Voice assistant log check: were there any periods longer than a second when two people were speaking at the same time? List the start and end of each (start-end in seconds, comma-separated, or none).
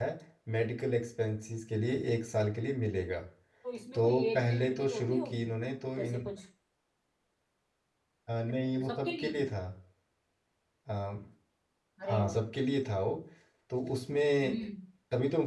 3.9-5.5